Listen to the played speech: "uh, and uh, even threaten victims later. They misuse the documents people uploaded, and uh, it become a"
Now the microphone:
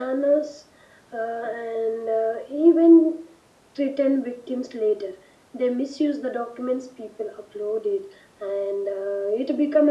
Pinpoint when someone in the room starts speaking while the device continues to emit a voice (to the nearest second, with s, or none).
none